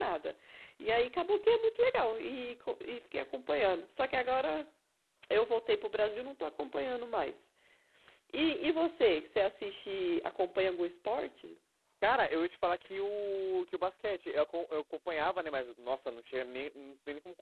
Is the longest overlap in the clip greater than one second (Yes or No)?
No